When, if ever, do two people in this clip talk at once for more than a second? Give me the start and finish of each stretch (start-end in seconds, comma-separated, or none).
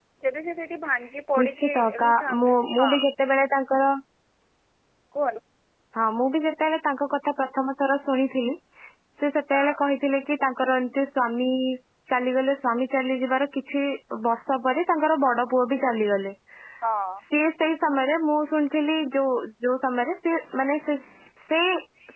1.4-3.0